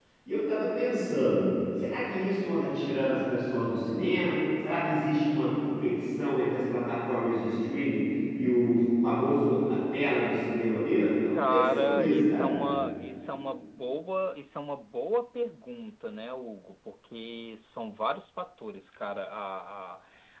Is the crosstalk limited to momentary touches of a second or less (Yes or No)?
No